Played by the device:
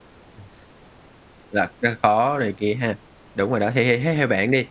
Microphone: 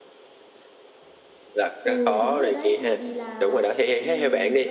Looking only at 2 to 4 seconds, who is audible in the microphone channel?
both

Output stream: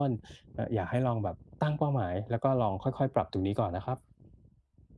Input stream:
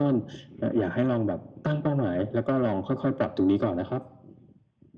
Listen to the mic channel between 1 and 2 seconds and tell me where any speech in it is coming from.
echo only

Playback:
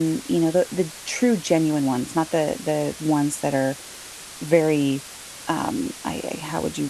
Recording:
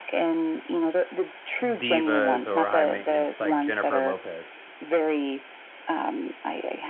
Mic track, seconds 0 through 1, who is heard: echo only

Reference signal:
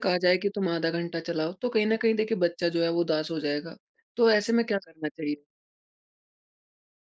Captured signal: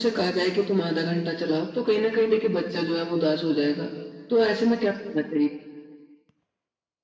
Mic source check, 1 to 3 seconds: echo only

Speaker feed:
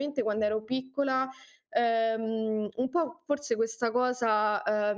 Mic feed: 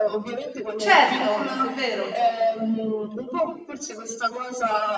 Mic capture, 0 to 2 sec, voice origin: both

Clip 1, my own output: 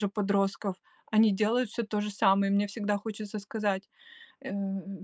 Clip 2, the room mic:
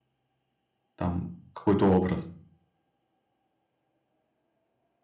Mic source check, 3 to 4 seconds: neither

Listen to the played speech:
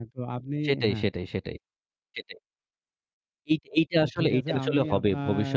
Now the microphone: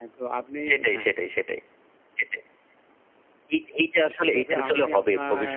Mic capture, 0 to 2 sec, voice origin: echo only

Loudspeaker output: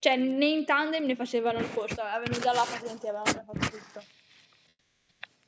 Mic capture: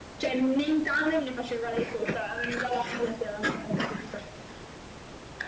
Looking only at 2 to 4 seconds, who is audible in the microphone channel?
echo only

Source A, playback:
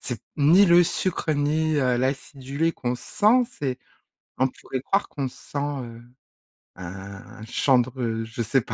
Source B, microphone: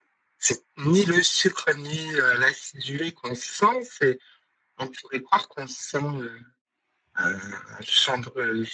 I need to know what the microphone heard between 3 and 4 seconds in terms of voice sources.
echo only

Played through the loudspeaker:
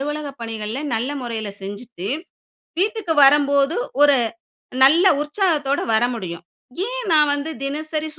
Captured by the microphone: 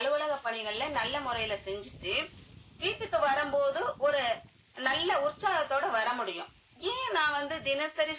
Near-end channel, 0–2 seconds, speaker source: echo only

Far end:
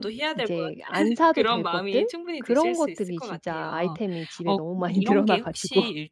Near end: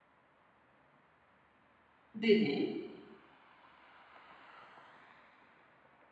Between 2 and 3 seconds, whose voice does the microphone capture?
user only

